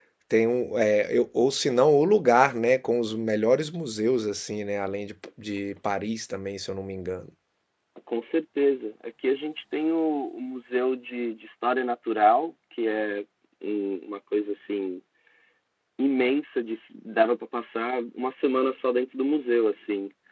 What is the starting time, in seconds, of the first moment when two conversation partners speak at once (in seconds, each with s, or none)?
none